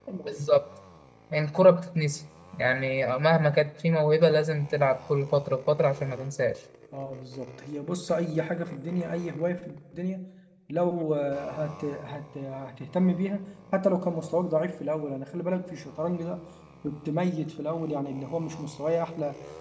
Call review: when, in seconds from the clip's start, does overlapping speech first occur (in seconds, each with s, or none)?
none